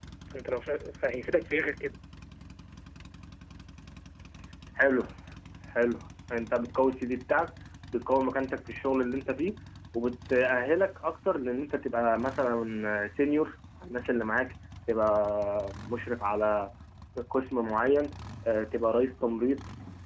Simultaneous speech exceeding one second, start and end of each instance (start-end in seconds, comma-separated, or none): none